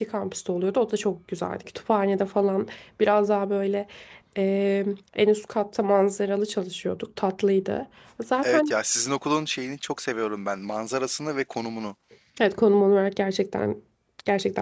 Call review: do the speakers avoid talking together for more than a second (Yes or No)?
Yes